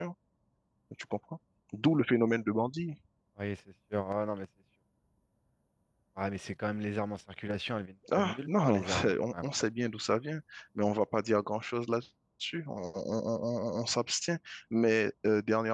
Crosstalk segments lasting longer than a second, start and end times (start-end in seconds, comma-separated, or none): 8.1-9.5